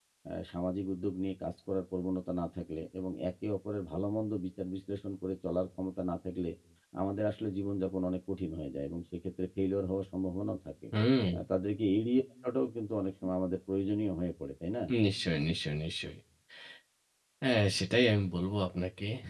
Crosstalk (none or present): none